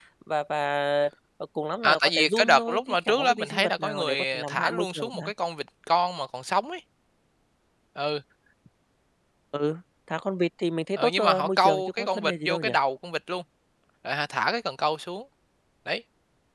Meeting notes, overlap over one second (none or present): present